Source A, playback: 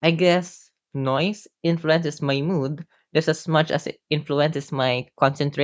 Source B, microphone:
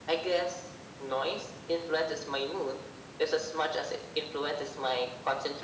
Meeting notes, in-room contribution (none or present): none